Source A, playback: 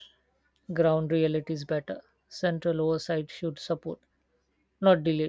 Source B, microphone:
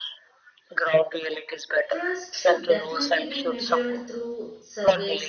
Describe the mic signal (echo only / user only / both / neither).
both